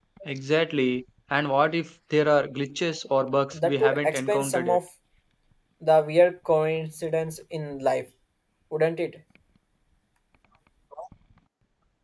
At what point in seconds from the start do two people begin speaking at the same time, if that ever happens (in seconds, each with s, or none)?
3.5 s